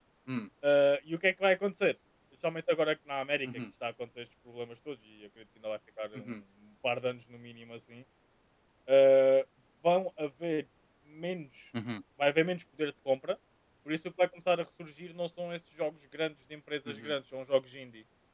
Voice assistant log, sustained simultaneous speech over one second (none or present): none